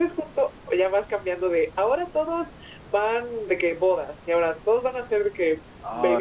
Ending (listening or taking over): taking over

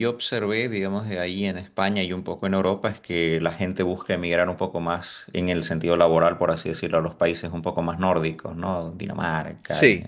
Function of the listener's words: listening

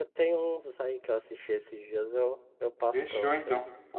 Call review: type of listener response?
taking over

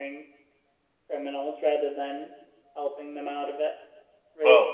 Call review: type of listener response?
listening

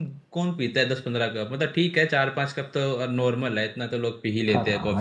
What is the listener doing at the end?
taking over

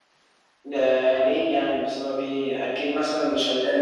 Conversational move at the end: listening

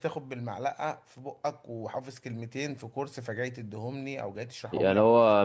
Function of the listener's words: taking over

